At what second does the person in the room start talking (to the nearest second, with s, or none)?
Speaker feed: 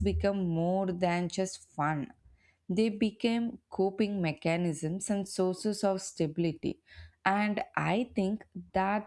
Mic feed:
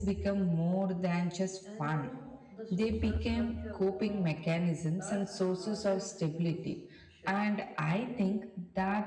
2 s